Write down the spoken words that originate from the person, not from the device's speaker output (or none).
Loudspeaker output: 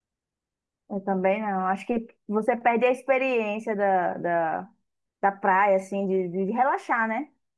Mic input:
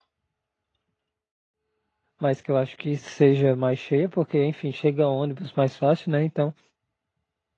mas que eu acho que seja mais cheia, porque, enfim, chega ônibus mais fácil, né? Então,